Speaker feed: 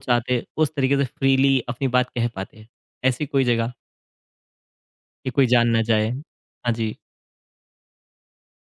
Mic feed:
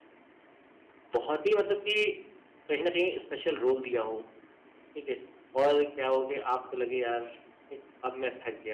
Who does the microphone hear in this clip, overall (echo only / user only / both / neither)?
user only